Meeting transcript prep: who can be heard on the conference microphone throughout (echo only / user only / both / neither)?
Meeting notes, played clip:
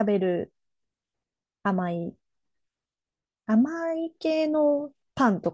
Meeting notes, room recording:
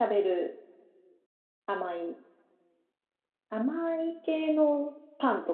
echo only